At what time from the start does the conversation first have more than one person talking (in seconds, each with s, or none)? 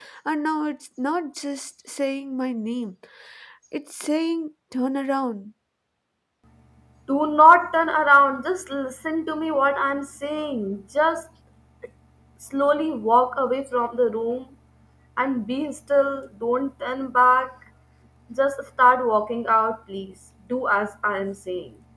none